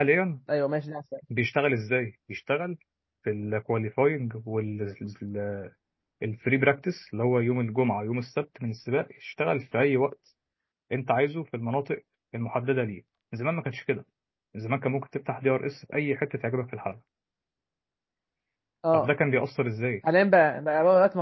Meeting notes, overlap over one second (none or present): none